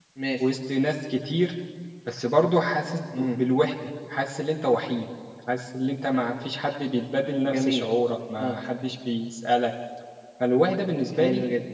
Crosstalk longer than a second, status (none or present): none